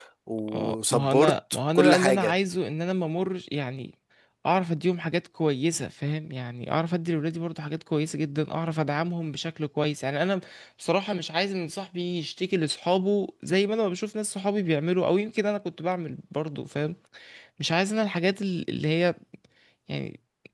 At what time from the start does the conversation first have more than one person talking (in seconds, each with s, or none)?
0.5 s